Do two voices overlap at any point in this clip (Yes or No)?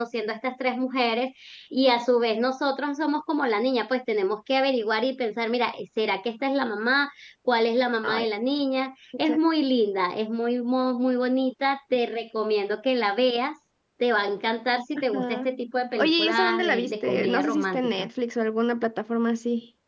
Yes